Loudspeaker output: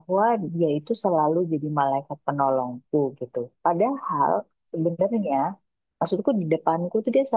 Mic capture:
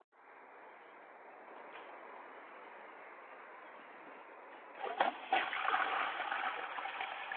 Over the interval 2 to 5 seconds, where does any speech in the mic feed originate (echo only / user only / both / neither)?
neither